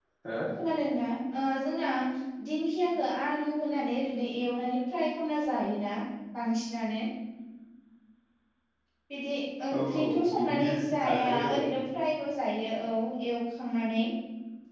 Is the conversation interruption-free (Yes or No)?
No